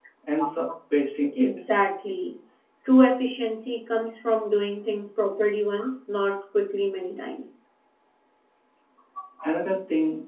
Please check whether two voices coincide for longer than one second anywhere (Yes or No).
No